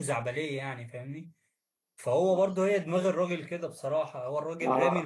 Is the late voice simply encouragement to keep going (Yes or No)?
Yes